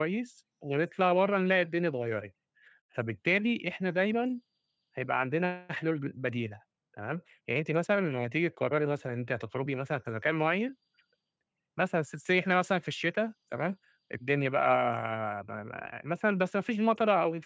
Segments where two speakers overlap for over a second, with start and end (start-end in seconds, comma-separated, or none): none